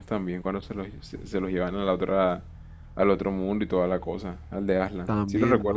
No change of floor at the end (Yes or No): No